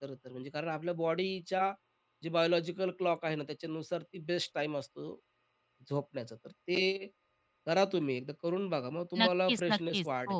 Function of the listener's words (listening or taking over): taking over